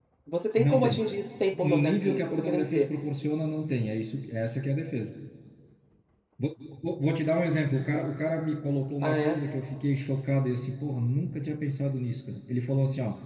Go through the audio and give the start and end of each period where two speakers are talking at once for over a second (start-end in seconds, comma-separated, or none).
1.5-2.9